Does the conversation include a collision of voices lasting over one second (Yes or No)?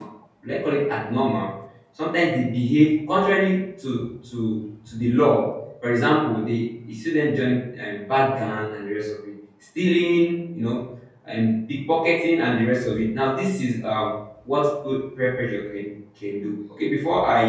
No